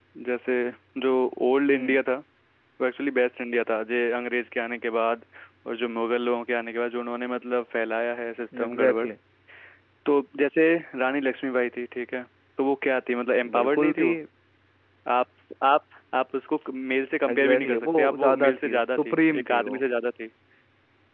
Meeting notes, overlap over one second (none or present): present